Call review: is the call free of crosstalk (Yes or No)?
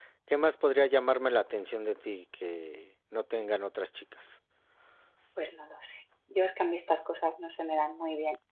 Yes